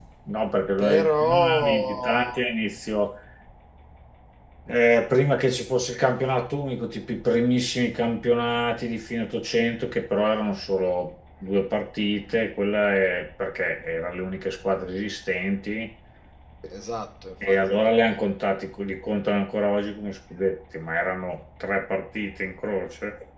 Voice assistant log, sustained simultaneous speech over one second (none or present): present